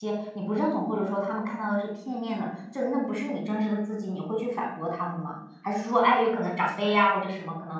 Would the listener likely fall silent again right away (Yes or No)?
Yes